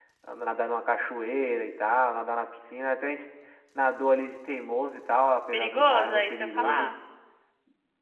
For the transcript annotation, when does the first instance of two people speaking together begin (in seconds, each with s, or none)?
5.5 s